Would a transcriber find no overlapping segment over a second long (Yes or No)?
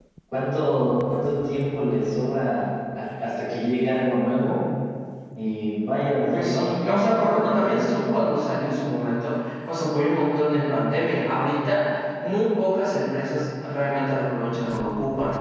No